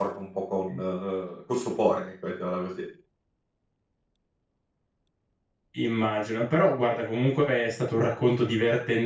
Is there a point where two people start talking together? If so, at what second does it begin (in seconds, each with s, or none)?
none